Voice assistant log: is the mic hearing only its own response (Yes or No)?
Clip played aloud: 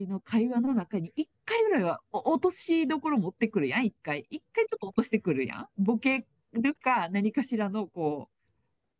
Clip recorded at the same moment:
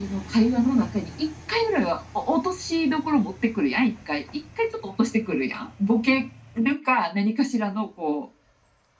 Yes